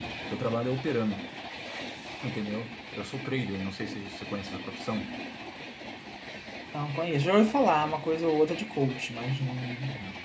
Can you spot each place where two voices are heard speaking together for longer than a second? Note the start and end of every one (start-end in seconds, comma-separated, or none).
none